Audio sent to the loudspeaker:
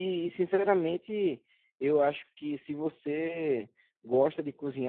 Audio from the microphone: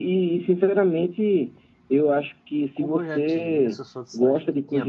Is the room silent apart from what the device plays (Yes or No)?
No